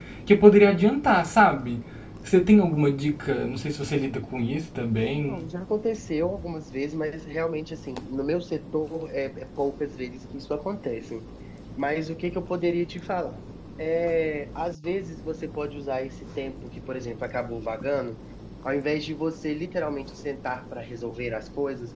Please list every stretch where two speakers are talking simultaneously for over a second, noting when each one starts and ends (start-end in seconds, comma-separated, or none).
none